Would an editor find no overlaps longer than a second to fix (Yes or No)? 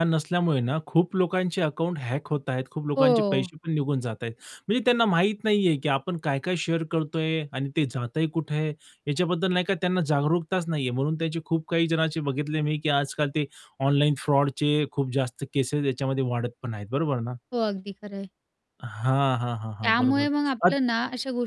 Yes